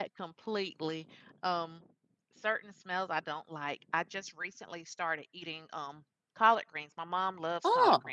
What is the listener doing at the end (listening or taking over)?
listening